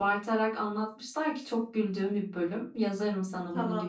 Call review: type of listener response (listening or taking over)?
taking over